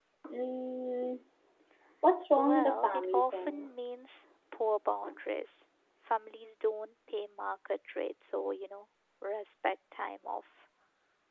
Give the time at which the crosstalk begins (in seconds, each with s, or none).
2.3 s